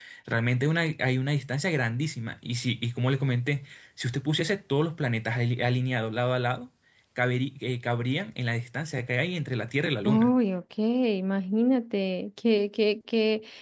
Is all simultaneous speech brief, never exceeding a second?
Yes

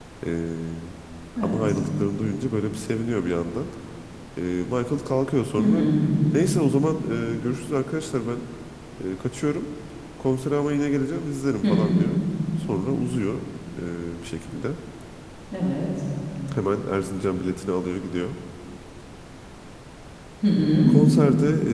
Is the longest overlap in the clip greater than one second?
No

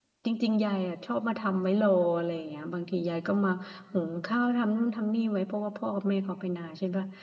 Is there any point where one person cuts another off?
No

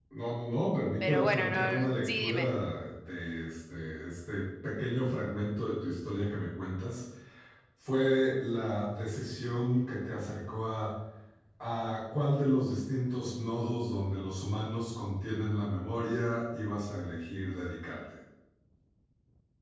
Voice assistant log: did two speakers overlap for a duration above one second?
Yes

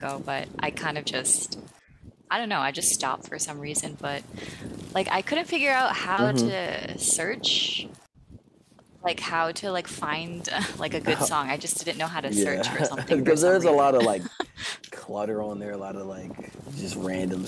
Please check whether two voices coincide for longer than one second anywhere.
Yes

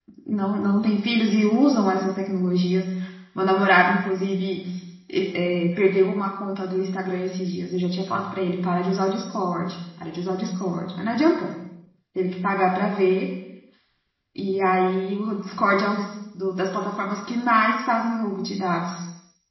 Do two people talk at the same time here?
No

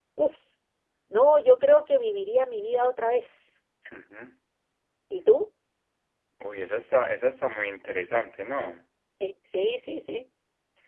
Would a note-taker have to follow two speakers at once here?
No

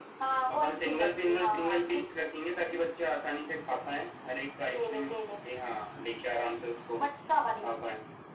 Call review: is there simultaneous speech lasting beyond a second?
Yes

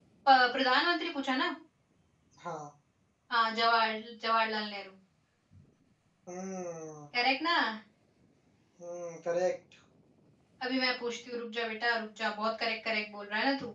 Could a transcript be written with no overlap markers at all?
Yes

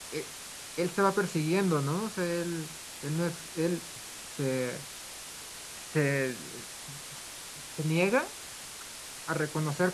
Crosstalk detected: No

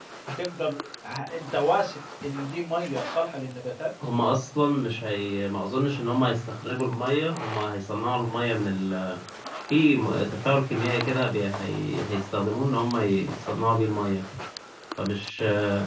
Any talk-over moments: No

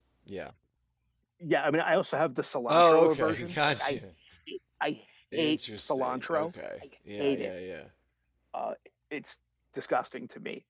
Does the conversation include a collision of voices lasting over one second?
Yes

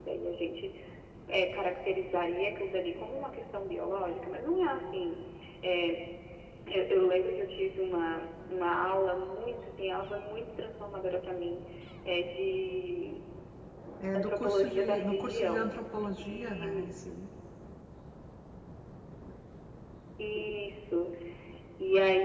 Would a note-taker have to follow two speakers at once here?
Yes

